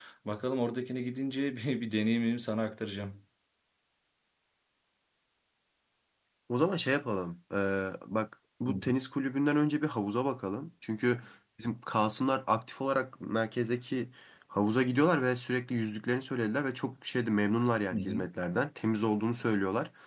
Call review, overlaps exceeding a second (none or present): none